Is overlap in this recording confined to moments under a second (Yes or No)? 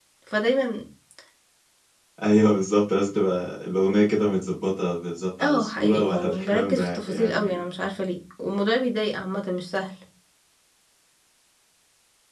No